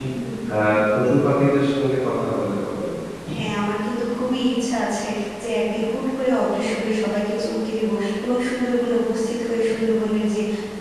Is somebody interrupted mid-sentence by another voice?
No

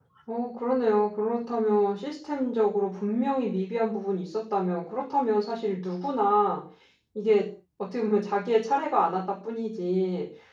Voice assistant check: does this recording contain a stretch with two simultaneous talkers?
No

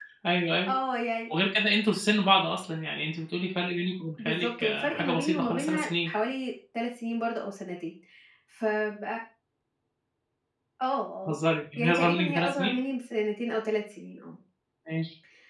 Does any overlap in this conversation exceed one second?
Yes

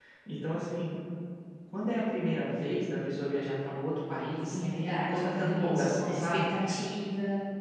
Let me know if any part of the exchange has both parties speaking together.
Yes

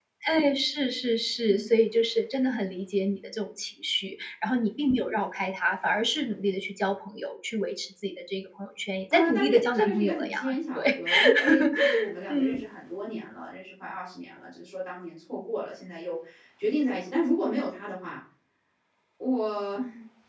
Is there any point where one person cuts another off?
Yes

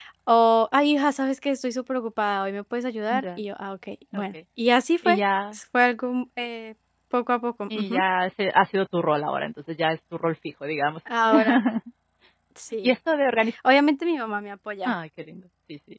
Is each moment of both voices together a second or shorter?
Yes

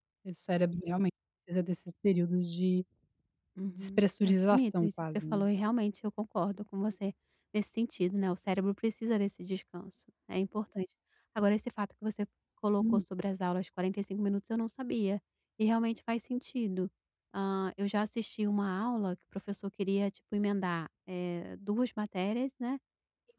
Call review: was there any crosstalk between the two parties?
Yes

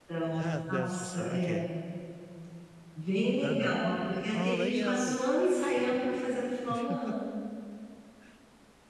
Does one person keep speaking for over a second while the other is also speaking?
Yes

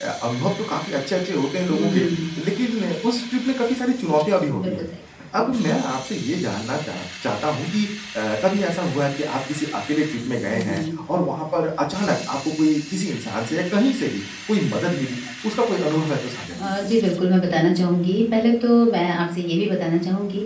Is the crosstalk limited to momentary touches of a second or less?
Yes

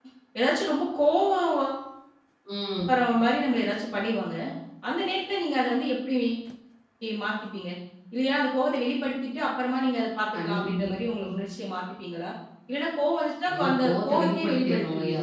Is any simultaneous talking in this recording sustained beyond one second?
Yes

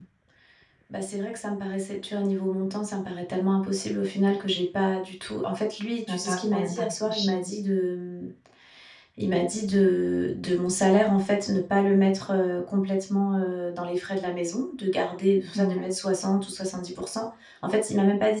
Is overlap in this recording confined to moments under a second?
No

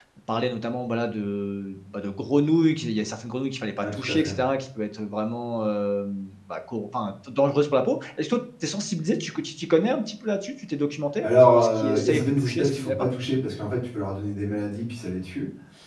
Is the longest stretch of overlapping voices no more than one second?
No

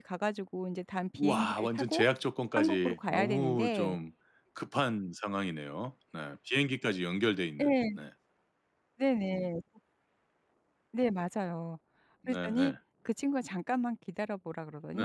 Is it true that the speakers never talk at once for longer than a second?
No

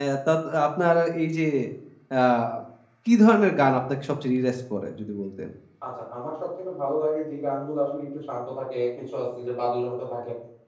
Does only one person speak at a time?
Yes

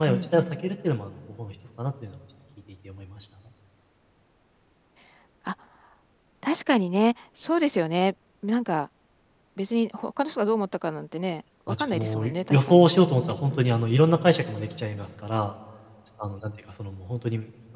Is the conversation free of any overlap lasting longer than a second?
No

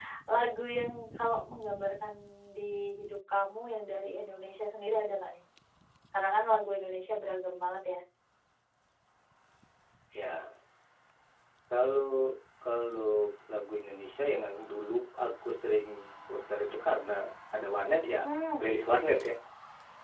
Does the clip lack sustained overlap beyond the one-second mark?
Yes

